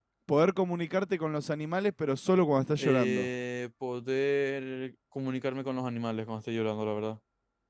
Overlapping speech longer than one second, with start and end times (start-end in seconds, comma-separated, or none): none